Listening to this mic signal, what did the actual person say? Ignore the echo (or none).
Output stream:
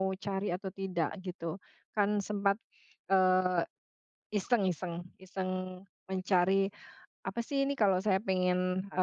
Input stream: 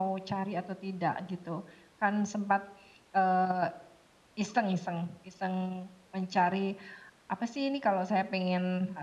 none